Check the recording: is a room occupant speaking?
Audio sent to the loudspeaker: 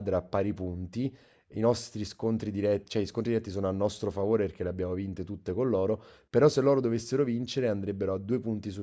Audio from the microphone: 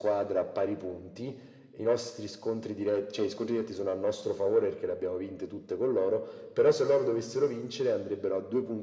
No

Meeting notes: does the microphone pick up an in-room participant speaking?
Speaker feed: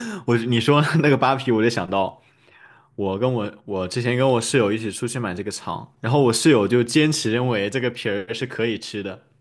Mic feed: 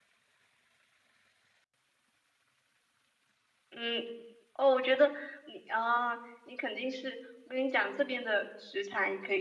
Yes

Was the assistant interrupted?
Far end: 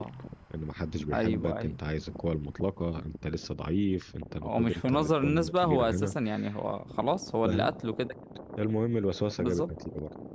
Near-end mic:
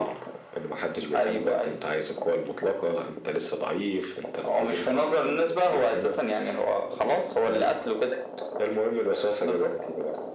No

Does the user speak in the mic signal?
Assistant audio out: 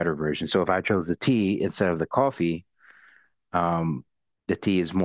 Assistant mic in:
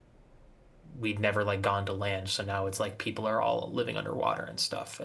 Yes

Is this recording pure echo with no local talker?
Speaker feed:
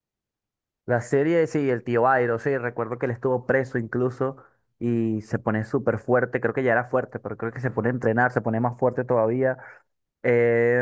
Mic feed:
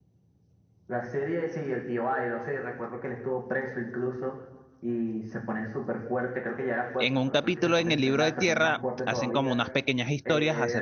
No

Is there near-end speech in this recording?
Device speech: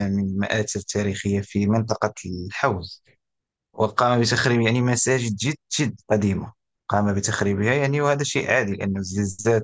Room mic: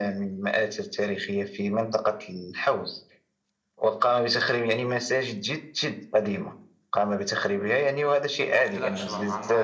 Yes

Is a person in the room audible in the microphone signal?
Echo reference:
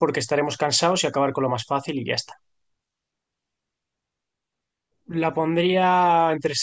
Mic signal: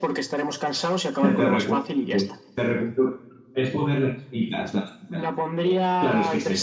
Yes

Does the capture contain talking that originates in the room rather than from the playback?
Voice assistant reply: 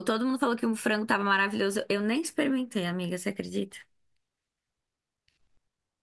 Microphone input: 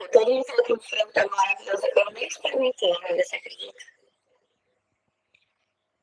No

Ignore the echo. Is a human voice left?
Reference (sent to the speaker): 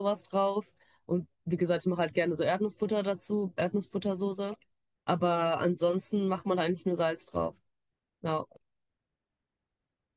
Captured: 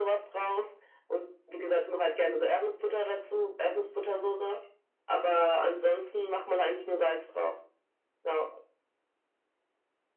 No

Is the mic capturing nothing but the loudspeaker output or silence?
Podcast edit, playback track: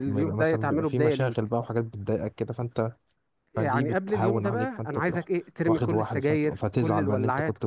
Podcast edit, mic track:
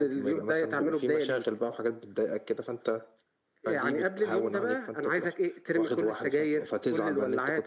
Yes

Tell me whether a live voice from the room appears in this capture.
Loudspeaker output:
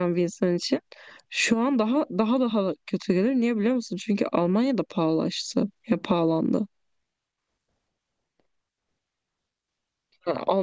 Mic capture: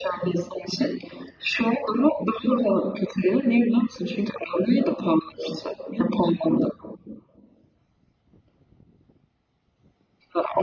No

